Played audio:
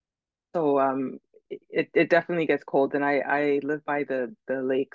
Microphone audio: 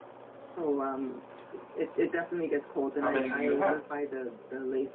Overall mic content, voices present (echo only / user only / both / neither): both